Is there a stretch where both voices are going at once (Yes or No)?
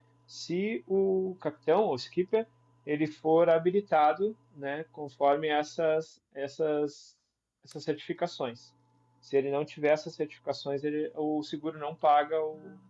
No